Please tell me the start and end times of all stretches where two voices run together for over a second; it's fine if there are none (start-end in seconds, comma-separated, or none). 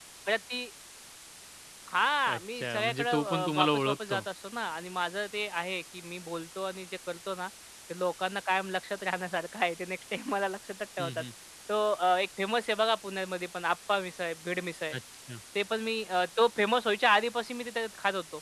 2.3-4.2